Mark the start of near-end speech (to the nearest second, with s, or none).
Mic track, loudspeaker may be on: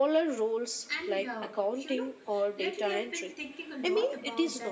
1 s